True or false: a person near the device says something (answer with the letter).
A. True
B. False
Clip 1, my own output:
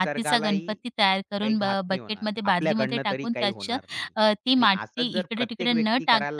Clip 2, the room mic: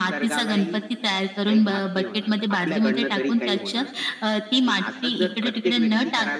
B